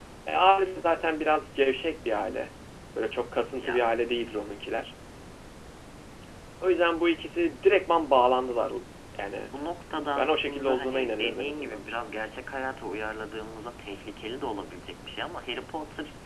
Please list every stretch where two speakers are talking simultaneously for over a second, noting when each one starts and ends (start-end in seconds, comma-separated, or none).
10.2-11.8